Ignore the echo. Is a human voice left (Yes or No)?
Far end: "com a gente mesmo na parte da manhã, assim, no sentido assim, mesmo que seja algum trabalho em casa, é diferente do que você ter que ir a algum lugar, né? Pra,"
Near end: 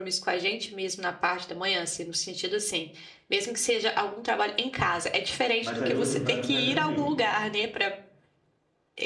Yes